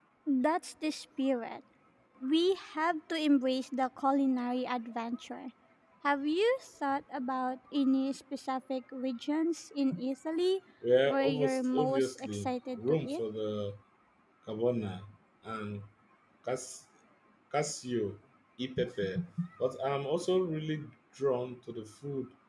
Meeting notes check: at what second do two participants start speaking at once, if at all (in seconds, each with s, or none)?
11.0 s